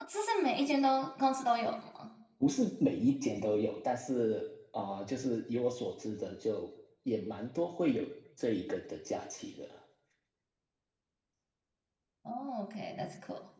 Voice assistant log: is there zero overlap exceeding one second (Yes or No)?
Yes